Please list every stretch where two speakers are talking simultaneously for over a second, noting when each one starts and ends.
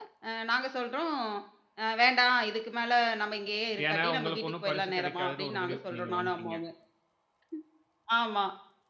3.9-6.6

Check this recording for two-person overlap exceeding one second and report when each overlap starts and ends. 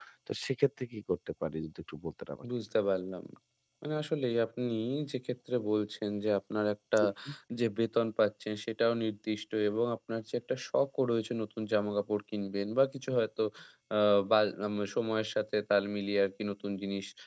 none

